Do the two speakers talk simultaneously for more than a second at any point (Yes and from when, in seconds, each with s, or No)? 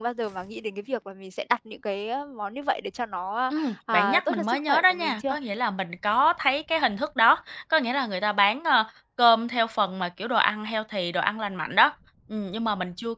Yes, from 3.5 s